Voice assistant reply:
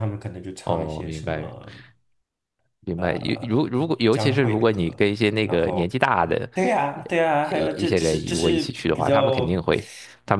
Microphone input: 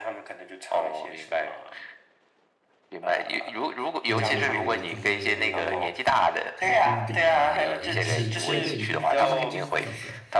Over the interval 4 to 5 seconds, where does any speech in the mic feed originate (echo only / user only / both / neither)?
both